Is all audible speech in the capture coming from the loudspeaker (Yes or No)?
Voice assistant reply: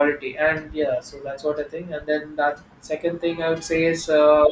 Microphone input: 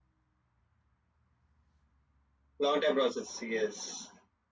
No